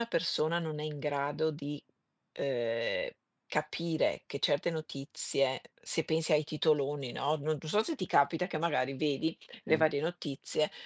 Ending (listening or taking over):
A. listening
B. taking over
A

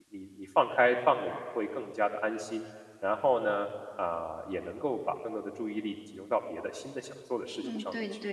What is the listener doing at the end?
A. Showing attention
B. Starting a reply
B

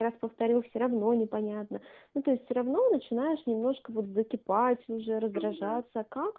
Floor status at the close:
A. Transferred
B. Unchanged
B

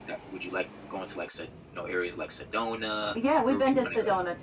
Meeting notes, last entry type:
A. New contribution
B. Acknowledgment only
A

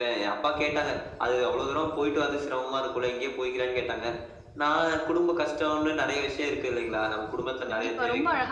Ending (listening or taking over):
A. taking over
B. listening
A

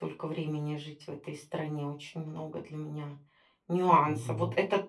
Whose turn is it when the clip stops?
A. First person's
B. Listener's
A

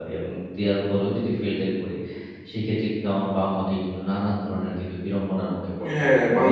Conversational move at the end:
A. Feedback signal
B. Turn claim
B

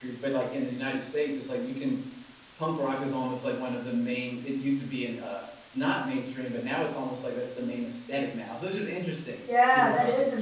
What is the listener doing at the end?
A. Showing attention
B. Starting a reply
B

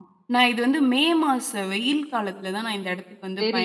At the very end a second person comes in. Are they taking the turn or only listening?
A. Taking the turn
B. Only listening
A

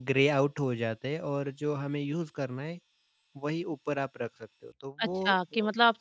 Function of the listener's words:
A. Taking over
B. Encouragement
A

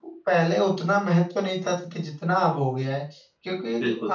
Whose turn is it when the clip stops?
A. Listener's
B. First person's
B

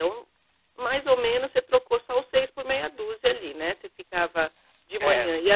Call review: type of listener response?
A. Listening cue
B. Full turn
A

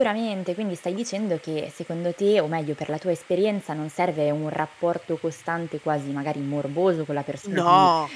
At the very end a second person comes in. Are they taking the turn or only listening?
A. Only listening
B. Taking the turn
A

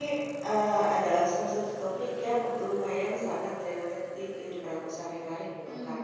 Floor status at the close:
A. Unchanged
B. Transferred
B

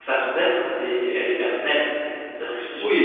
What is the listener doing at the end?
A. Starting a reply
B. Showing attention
A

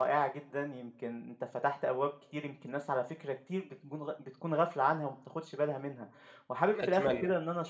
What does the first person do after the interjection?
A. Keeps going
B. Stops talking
A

